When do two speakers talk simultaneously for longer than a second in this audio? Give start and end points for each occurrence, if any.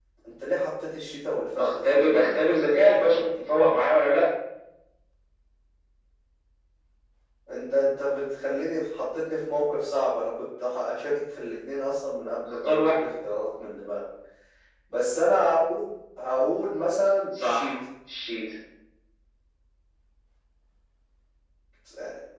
1.6-3.2

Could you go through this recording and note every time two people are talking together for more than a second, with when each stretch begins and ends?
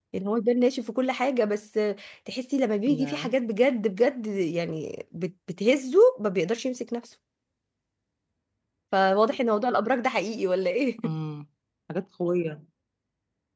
none

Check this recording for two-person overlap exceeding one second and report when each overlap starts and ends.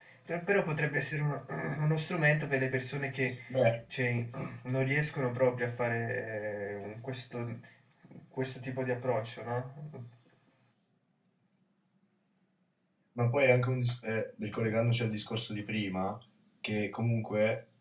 none

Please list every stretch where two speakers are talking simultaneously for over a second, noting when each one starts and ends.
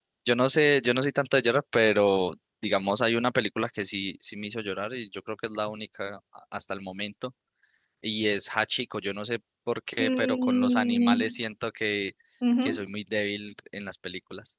10.0-11.4

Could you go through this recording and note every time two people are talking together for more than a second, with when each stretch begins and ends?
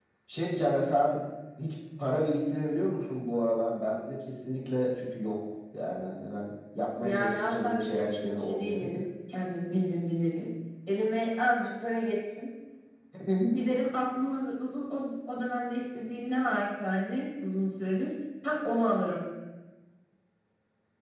7.0-8.9

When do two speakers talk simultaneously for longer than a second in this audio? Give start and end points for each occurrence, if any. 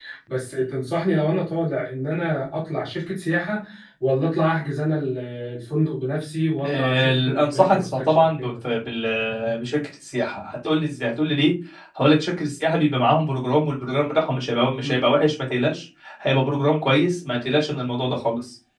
6.6-8.5

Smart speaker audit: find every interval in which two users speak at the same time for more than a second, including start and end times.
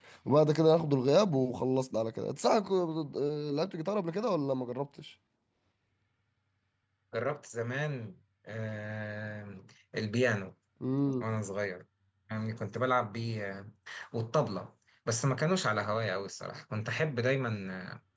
none

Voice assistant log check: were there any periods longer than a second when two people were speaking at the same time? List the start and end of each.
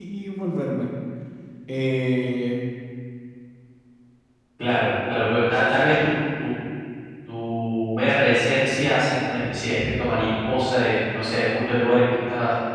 none

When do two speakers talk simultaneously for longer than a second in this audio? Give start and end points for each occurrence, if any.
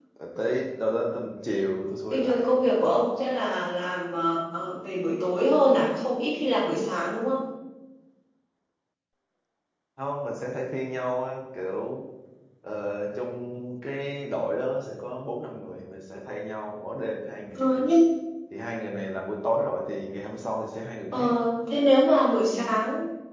none

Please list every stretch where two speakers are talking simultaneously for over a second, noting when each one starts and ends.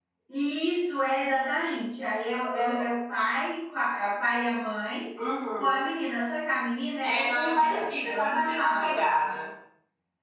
7.0-9.0

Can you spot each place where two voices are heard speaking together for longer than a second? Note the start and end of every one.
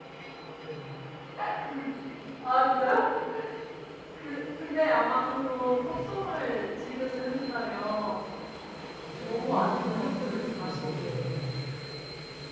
9.1-11.3

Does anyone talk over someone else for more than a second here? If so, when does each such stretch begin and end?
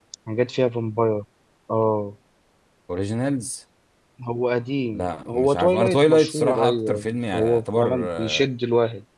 4.9-8.5

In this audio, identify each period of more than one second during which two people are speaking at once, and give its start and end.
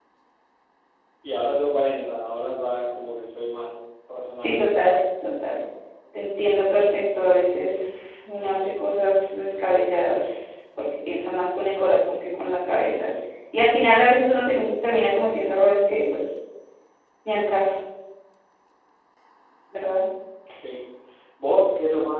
none

